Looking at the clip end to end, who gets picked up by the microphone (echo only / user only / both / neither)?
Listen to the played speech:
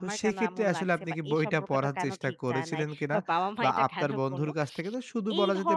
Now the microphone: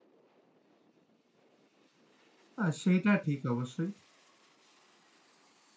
user only